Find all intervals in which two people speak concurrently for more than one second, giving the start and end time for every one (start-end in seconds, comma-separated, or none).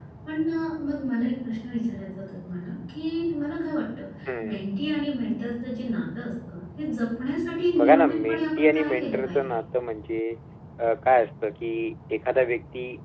7.8-9.4